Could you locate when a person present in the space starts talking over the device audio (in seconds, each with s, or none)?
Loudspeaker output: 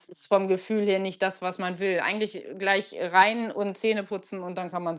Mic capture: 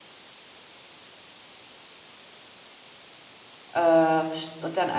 3.7 s